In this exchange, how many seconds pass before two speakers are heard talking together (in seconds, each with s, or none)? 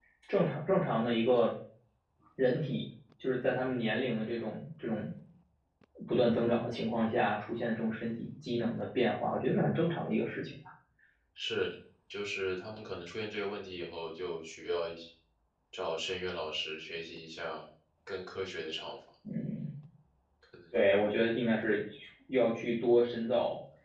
none